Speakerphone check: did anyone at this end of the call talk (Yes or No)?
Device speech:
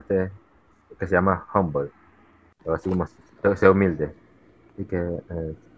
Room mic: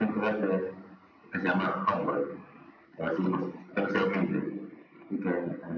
No